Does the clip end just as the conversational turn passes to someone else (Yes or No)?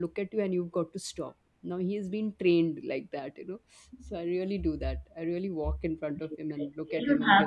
Yes